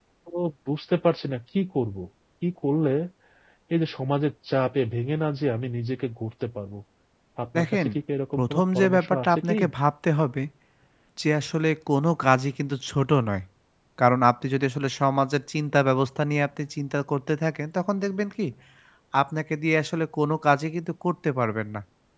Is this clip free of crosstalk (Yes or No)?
No